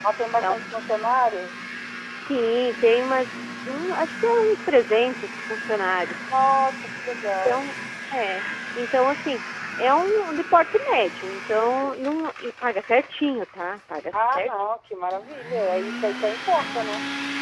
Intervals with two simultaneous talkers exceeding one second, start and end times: none

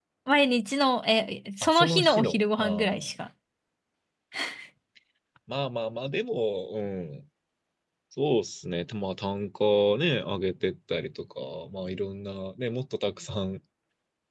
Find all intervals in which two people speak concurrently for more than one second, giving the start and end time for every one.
1.6-3.1

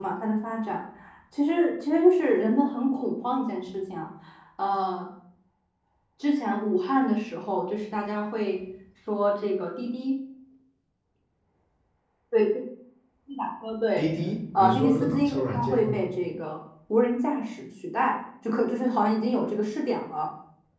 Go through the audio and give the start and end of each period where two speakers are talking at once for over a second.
14.6-16.0

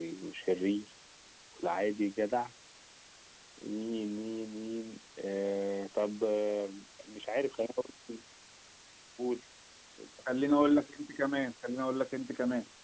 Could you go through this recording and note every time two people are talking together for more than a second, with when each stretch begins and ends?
none

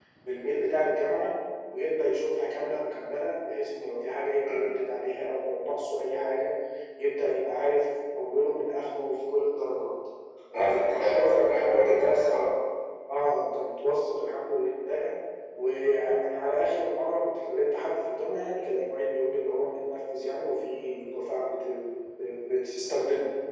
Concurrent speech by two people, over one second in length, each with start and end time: 10.5-12.4

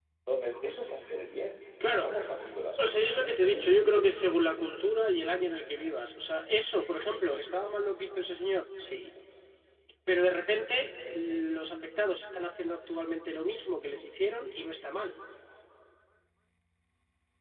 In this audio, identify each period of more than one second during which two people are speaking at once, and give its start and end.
2.8-4.2

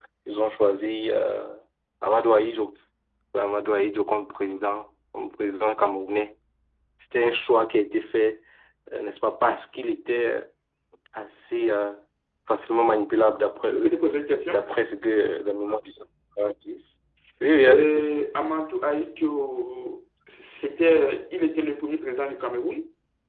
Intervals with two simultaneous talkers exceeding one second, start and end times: none

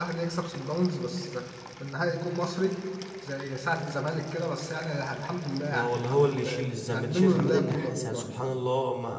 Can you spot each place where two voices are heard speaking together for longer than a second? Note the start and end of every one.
5.7-8.3

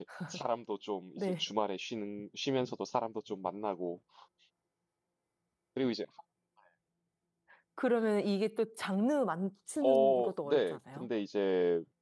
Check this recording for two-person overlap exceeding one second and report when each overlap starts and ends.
9.8-11.1

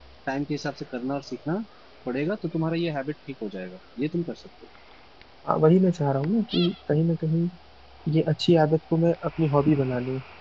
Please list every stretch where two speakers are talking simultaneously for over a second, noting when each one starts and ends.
none

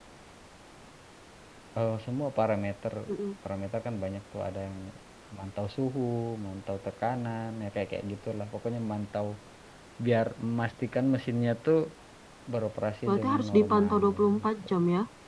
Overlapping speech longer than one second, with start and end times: 13.1-14.5

